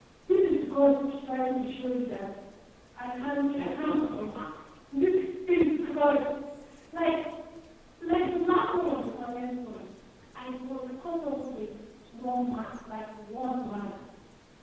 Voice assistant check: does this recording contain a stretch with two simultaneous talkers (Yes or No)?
Yes